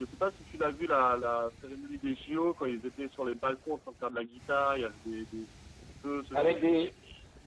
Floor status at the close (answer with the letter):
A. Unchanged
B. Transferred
B